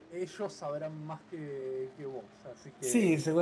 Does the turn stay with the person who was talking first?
No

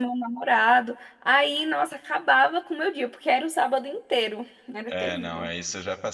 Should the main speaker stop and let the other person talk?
Yes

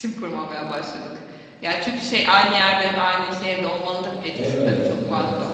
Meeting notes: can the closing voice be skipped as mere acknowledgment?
No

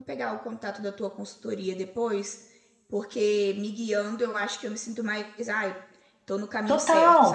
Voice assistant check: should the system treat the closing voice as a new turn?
Yes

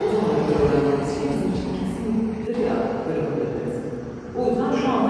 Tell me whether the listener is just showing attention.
Yes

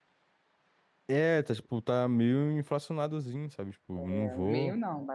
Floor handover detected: Yes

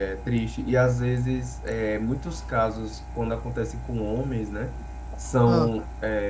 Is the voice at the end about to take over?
No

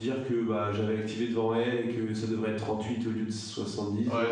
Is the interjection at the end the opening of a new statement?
Yes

